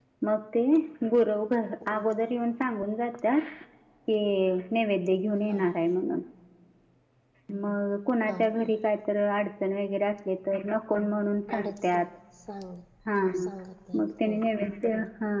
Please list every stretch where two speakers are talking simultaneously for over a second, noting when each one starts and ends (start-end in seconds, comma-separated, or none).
none